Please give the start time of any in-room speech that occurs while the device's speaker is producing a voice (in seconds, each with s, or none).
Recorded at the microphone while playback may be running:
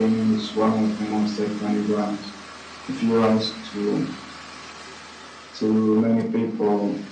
none